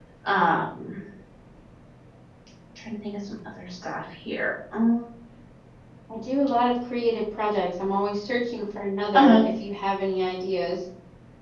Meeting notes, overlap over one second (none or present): none